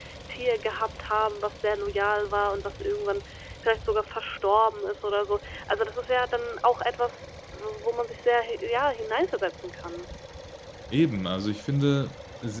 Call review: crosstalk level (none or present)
none